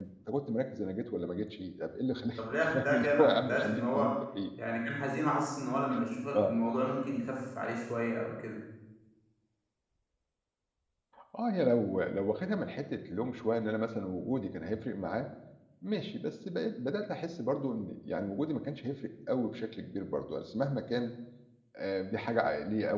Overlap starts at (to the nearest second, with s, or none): 2 s